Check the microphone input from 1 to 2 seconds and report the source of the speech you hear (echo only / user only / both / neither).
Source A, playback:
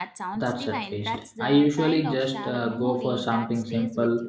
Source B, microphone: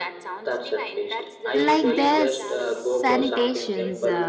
both